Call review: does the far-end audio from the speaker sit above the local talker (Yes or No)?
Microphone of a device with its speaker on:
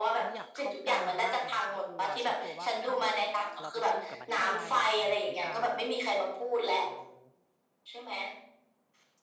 Yes